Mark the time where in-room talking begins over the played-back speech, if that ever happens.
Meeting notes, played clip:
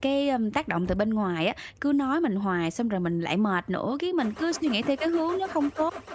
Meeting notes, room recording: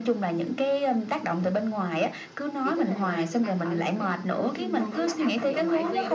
2.6 s

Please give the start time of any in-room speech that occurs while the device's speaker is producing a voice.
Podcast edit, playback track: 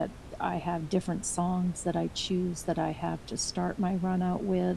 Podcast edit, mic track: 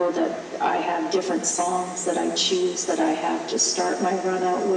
none

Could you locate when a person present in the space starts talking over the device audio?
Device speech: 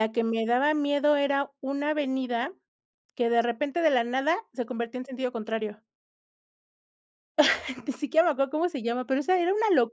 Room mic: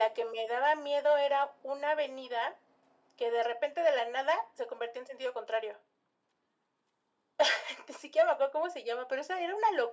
none

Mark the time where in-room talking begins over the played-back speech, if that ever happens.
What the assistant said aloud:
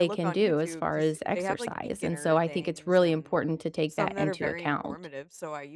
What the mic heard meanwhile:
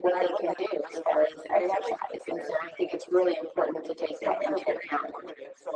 none

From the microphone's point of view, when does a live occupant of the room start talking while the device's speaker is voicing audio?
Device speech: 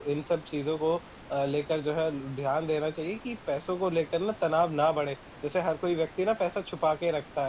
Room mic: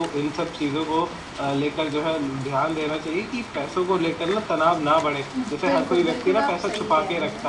5.3 s

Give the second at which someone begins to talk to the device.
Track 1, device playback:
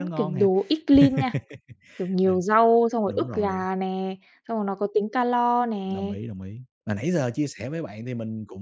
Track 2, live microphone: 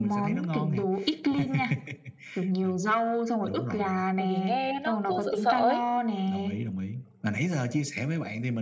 4.2 s

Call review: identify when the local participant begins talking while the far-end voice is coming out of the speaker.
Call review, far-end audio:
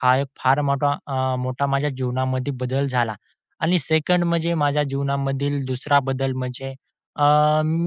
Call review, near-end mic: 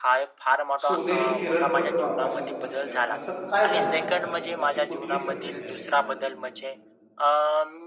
0.9 s

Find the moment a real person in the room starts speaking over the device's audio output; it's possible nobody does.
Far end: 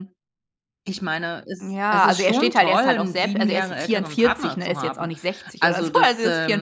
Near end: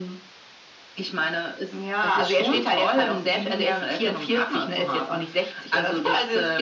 none

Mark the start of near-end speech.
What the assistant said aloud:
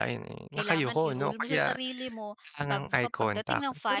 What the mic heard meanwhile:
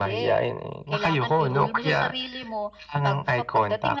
none

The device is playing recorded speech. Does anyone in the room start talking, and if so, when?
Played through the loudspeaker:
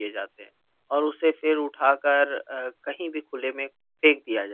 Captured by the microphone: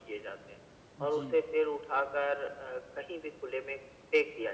1.0 s

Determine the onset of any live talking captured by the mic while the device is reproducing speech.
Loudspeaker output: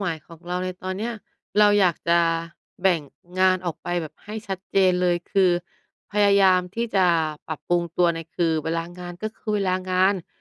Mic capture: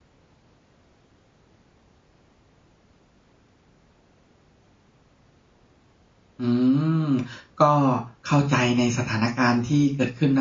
6.4 s

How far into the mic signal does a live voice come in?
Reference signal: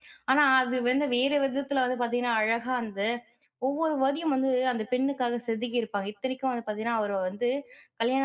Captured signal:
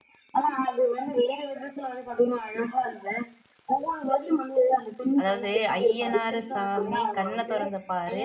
5.2 s

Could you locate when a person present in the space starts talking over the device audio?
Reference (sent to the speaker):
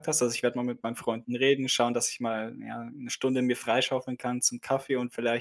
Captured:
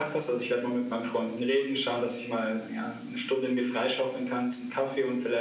none

